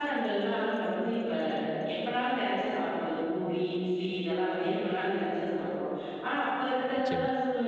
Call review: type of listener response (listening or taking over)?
listening